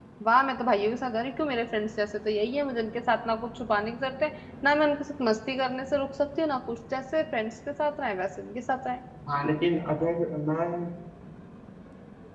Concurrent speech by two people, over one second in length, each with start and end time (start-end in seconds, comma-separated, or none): none